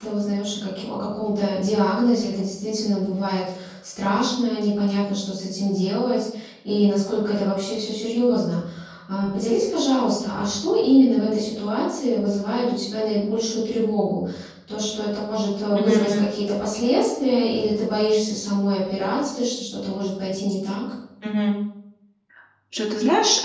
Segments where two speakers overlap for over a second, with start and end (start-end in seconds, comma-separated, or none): none